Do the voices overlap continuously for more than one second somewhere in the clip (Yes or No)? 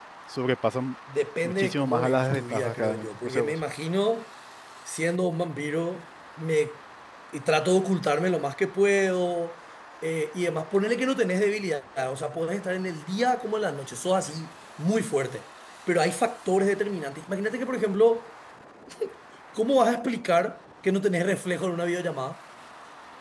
Yes